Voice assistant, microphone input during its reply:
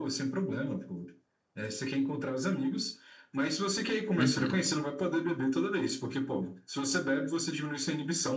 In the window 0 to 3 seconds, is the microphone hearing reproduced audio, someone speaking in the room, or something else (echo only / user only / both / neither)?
echo only